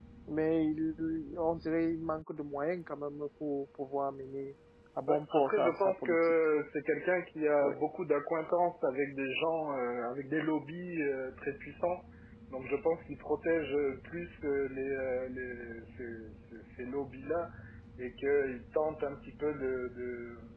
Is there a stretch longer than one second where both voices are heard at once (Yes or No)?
Yes